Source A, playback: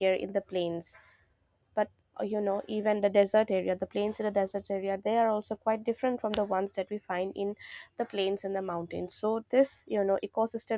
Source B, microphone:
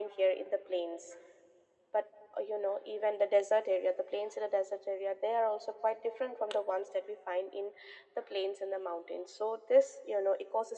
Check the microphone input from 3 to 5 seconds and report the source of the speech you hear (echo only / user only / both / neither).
echo only